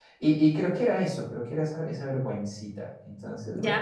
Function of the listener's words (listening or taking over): taking over